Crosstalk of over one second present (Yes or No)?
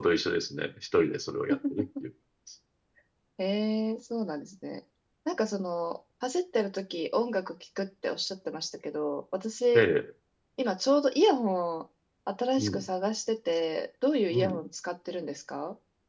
No